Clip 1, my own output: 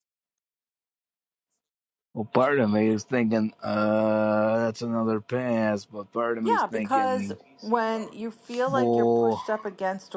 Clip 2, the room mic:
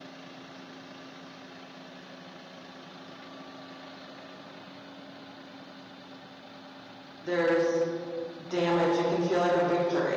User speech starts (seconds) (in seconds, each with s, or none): 7.2 s